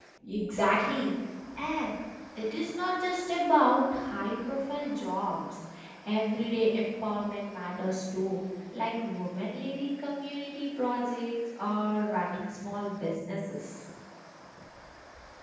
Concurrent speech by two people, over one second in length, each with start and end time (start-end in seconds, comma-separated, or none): none